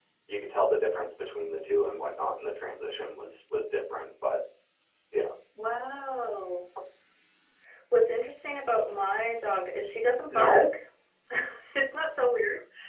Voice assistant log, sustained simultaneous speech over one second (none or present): none